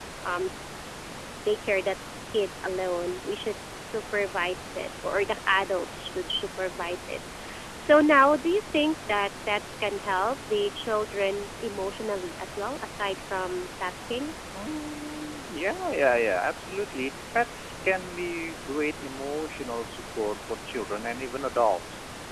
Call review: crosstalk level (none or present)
none